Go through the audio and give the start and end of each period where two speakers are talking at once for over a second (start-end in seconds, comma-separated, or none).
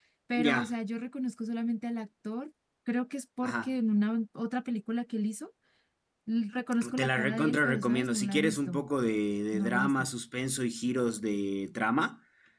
7.0-8.8